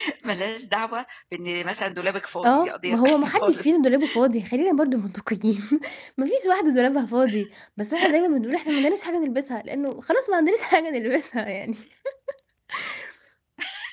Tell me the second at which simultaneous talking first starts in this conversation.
2.4 s

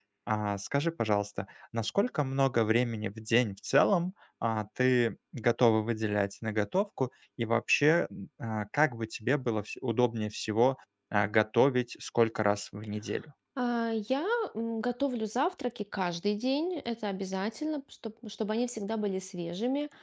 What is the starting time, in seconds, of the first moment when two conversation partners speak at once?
none

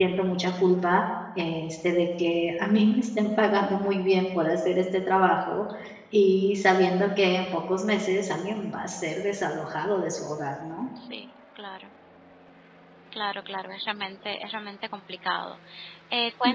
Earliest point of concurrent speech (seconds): none

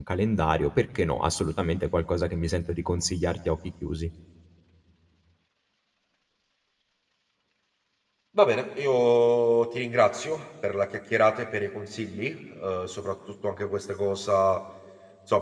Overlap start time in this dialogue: none

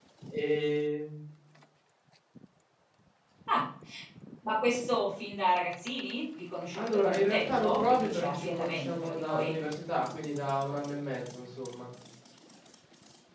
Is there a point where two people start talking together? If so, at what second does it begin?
6.8 s

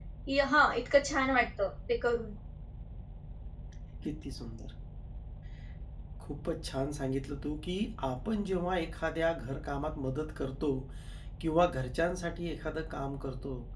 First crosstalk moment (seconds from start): none

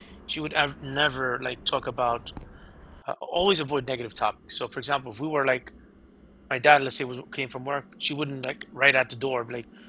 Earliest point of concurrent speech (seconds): none

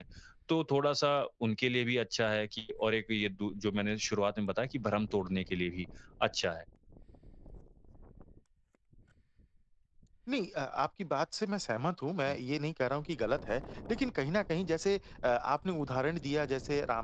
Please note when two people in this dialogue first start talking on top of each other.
none

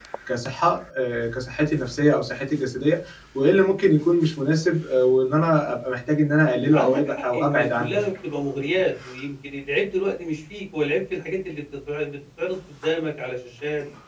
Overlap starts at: 6.7 s

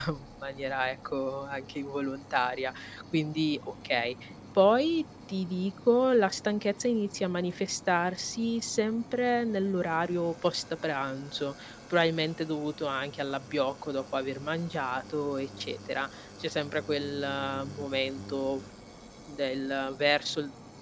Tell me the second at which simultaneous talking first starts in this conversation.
none

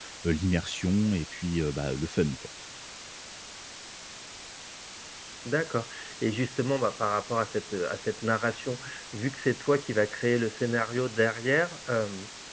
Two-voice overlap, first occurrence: none

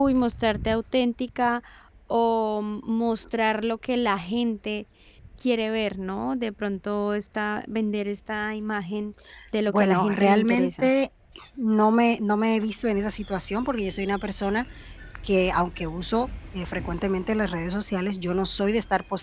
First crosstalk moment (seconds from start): 9.7 s

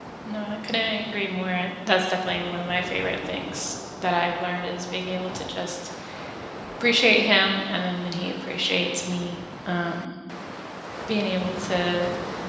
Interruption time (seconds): none

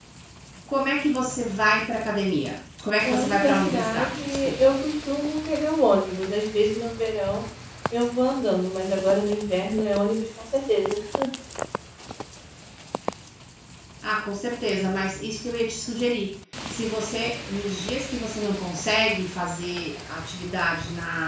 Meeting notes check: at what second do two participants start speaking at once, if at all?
3.0 s

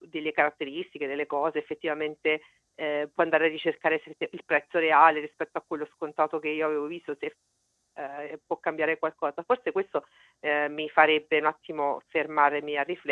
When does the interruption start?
none

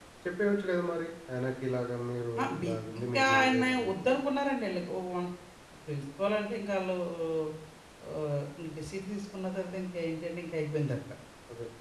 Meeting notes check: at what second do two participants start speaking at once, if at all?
2.4 s

